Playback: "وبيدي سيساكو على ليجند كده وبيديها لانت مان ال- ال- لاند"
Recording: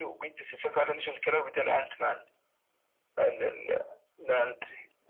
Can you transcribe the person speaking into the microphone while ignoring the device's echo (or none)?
none